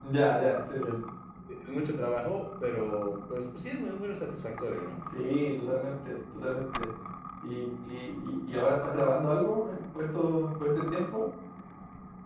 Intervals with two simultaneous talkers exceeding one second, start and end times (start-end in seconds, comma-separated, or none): none